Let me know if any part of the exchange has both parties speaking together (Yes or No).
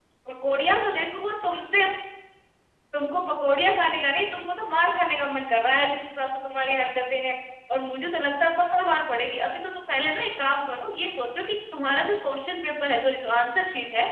No